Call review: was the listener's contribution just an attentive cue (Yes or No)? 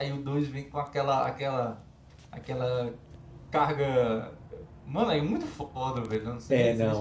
No